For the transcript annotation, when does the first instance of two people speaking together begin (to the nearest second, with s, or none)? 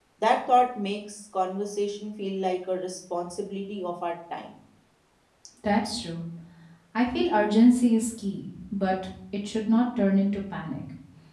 none